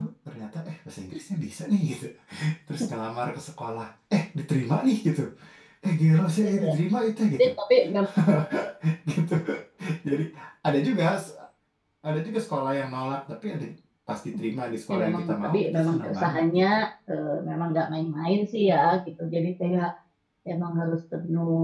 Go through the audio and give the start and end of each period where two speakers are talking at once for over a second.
14.9-16.6

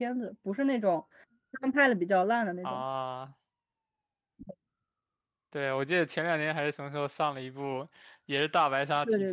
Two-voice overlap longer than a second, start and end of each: none

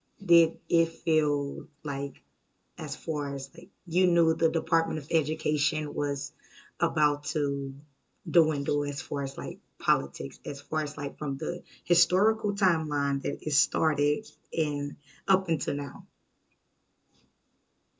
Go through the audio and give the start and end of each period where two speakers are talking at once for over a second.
none

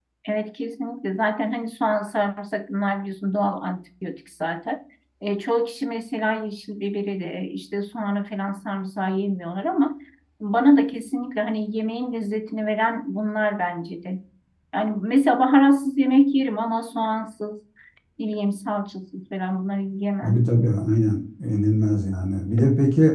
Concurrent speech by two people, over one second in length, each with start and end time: none

